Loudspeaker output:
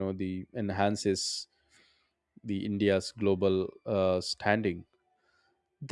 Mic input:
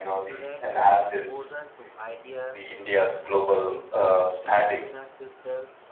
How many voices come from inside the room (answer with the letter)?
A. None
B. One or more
B